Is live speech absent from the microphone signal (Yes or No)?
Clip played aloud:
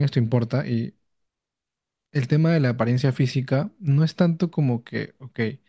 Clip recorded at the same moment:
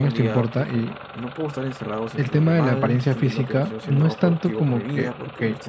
No